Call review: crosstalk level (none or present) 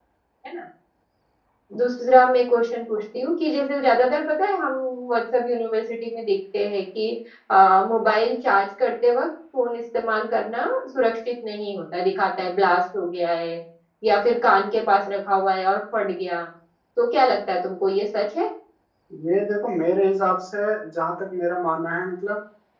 none